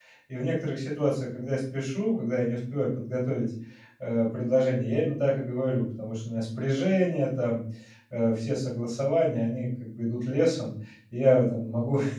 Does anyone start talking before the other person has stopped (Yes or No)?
No